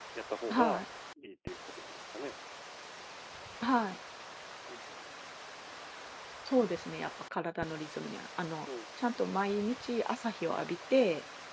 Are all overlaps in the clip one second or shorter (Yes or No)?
Yes